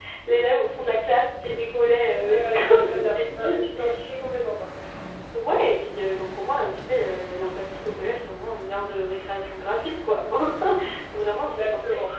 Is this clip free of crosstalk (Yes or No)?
No